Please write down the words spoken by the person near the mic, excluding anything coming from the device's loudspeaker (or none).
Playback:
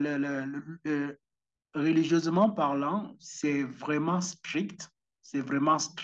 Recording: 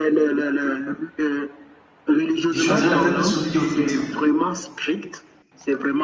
Je choisirais le fait qu'il faut tout dire.